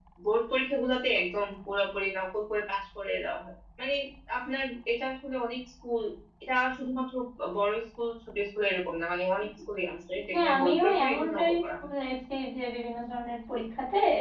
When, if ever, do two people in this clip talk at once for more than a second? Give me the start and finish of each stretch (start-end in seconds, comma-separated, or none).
10.3-11.9